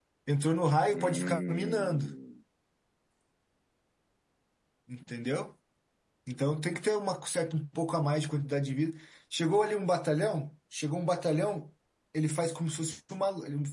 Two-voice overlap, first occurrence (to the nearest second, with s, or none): 1 s